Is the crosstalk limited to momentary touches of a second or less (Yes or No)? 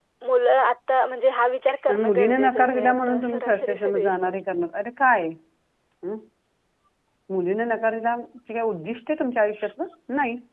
No